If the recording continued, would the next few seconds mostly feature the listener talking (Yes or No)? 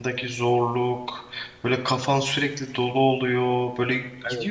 No